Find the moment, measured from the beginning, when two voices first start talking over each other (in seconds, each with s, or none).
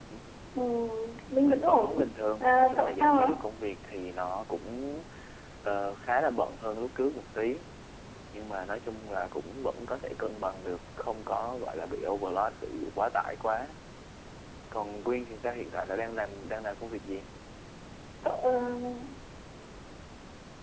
1.4 s